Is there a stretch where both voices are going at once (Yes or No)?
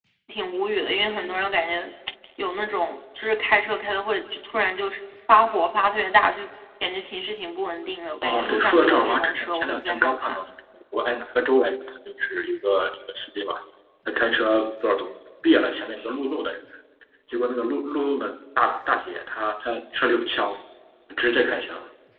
Yes